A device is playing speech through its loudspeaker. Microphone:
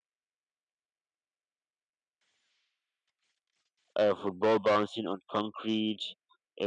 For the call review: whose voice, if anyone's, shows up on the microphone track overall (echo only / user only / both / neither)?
user only